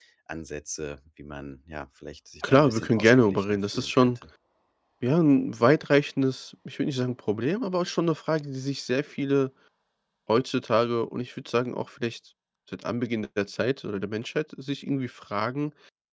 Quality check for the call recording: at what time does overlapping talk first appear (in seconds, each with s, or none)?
2.4 s